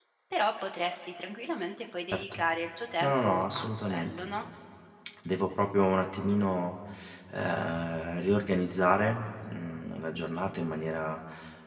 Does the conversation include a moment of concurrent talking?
Yes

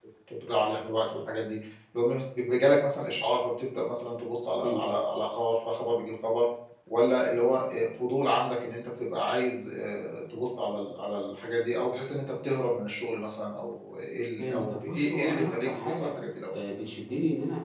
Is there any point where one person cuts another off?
Yes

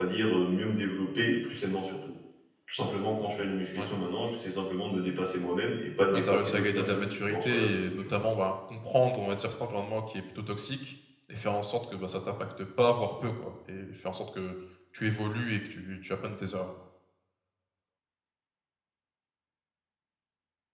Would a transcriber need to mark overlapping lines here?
Yes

